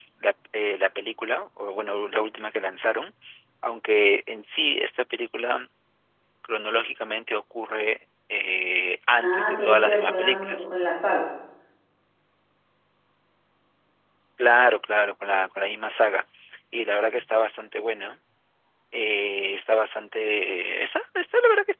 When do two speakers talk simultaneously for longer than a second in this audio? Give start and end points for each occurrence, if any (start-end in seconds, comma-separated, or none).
9.2-10.7